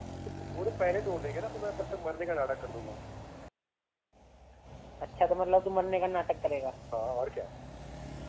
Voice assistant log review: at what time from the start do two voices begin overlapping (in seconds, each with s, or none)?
none